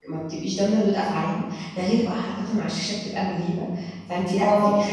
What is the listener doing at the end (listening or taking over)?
listening